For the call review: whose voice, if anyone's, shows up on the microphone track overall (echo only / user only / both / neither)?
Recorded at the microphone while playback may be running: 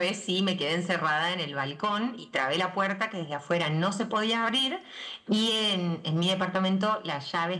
echo only